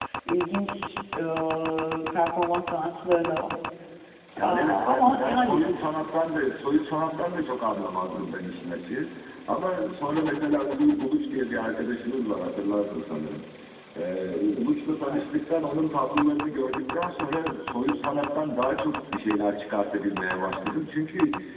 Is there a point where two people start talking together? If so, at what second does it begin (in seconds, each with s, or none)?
4.4 s